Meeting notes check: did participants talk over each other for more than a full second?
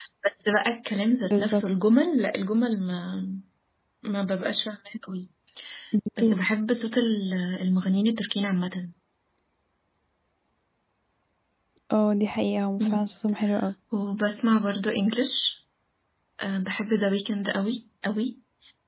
No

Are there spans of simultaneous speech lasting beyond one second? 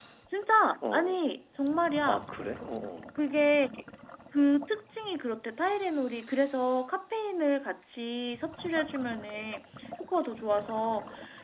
No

